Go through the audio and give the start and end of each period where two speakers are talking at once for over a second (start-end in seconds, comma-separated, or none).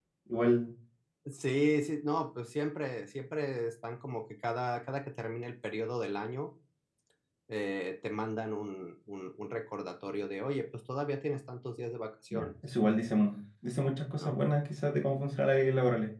none